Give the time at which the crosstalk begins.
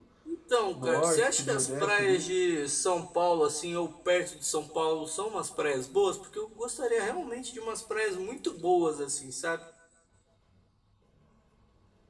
0.8 s

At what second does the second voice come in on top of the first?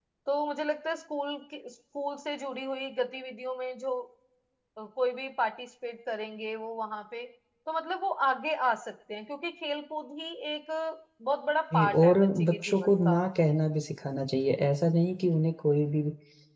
11.7 s

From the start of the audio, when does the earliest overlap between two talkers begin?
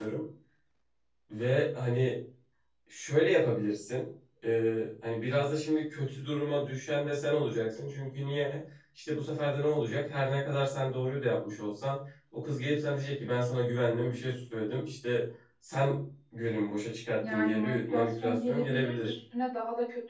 17.2 s

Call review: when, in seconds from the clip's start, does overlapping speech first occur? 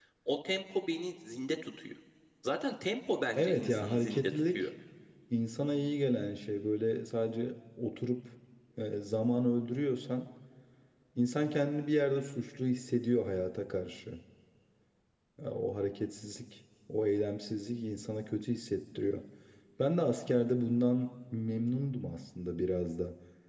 3.4 s

